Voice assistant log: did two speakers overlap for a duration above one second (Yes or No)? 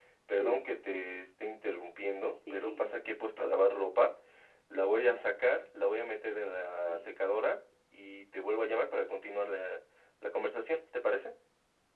No